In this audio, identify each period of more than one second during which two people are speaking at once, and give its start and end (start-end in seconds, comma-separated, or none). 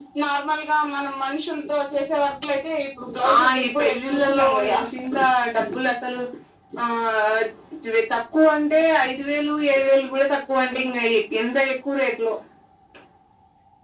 3.3-4.8